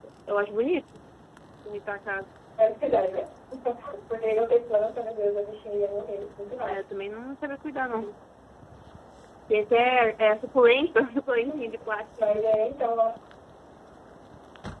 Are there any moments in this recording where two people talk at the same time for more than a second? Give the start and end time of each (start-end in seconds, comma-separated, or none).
none